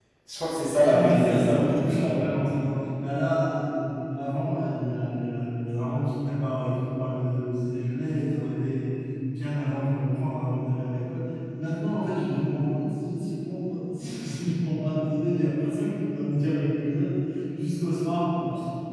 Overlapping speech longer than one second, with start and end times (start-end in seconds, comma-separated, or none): 0.8-2.2